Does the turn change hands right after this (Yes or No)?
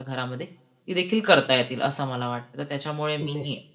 No